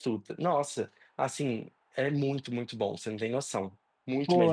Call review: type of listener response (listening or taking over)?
taking over